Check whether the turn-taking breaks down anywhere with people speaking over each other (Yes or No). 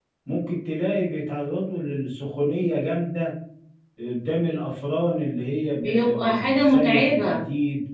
Yes